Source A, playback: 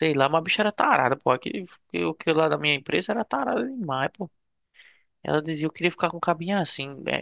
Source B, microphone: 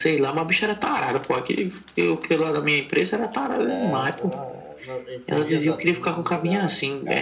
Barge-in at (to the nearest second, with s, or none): 4 s